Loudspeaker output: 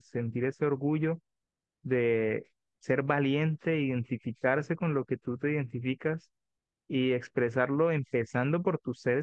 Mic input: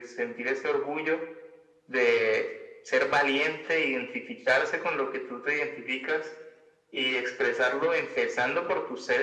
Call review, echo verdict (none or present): present